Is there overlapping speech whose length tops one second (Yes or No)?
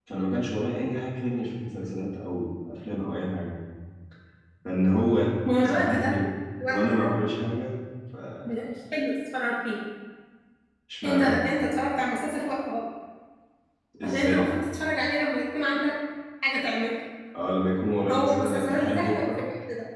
Yes